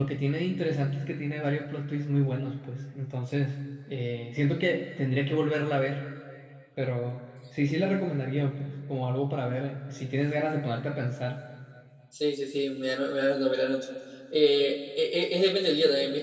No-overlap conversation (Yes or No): Yes